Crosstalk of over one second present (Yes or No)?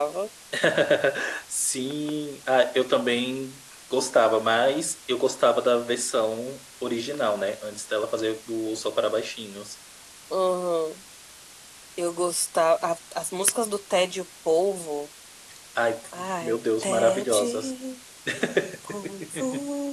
Yes